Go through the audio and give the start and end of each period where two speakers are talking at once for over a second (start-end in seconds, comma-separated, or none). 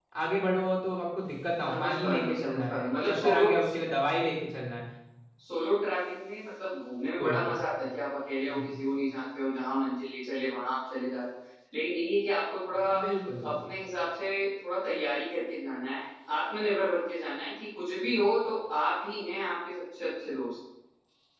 1.7-3.5